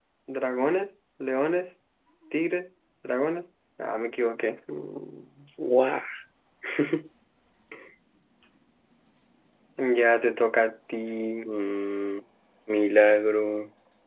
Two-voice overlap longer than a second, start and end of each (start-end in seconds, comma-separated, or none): none